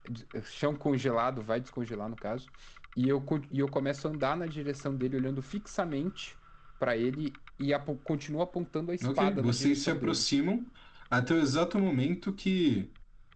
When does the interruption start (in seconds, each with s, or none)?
9.0 s